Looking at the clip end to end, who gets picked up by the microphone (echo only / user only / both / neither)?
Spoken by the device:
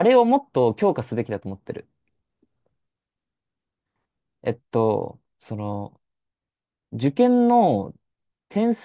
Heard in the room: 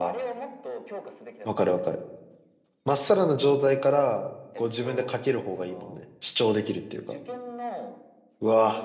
both